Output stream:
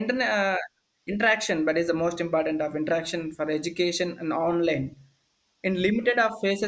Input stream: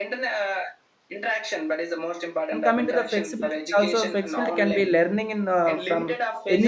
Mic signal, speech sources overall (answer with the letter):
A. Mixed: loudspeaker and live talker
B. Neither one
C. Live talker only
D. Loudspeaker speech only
A